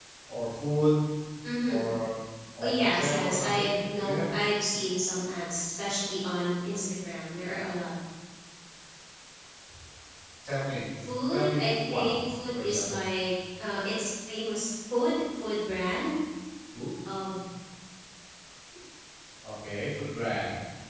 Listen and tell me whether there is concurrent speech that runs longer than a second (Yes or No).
Yes